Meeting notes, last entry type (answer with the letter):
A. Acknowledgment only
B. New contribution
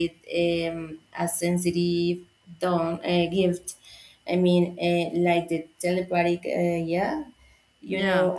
A